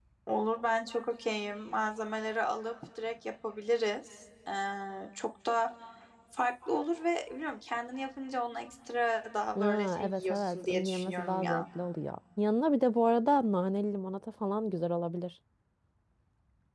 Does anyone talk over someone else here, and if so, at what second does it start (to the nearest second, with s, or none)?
10 s